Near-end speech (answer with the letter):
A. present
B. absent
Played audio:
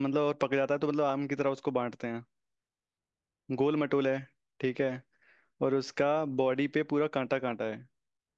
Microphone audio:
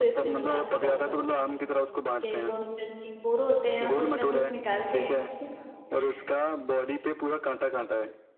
A